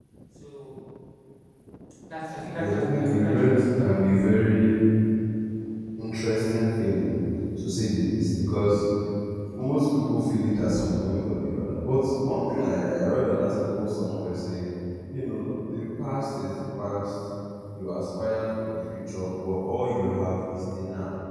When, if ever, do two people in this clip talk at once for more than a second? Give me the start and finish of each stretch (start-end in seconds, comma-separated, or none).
2.6-3.9